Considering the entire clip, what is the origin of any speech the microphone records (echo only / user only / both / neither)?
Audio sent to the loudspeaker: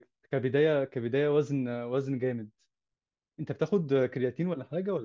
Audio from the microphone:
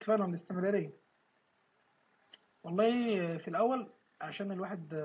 user only